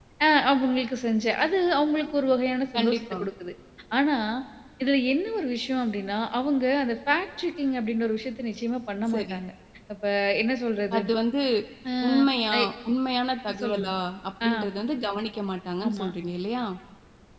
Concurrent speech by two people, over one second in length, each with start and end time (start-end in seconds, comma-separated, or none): none